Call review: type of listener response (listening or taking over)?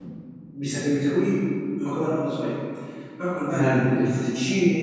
listening